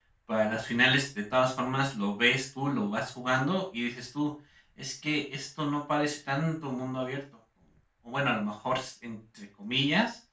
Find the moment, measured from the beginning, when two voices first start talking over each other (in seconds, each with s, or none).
none